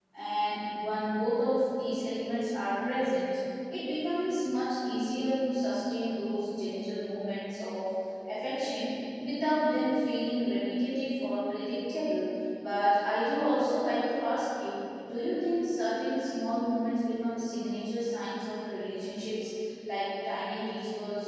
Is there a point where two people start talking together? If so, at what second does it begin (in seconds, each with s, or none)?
none